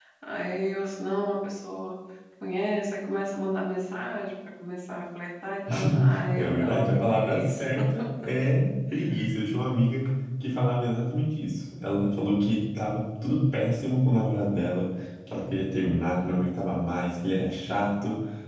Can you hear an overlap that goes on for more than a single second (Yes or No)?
Yes